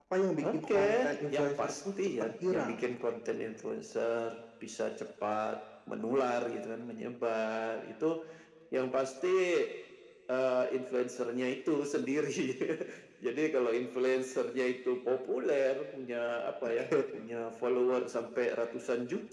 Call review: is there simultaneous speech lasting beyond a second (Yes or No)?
Yes